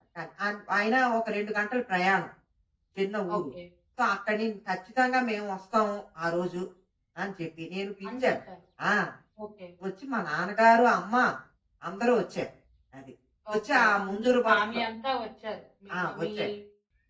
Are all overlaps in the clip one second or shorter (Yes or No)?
No